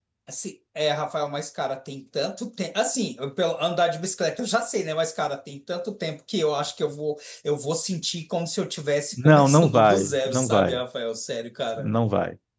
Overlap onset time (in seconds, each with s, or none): 9.1 s